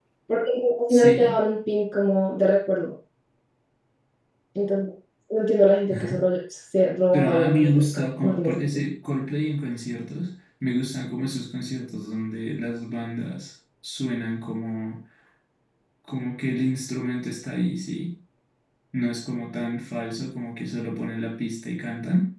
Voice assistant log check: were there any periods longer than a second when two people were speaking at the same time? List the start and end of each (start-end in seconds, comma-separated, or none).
7.1-8.8